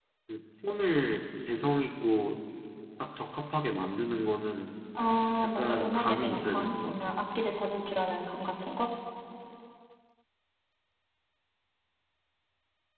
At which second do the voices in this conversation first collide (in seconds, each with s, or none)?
5.4 s